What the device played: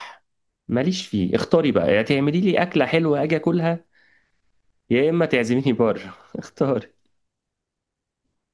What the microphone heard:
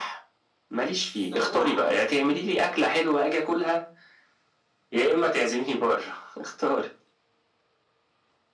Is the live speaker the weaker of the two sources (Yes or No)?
Yes